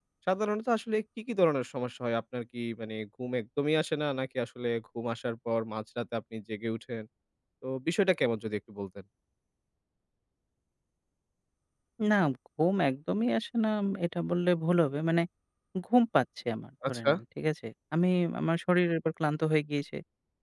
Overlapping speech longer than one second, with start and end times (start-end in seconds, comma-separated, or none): none